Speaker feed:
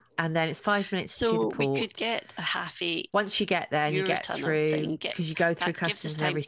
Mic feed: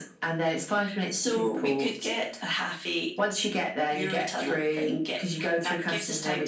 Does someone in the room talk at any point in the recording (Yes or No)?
No